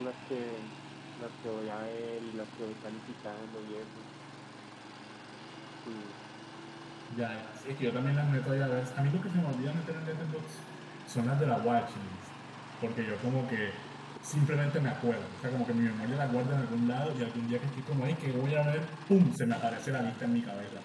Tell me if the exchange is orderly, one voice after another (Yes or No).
Yes